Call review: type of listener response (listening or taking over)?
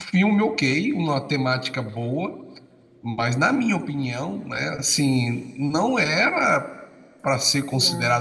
listening